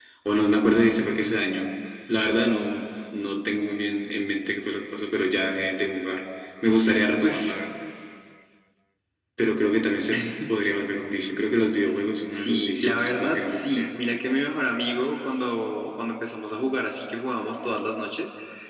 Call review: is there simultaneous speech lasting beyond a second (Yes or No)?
Yes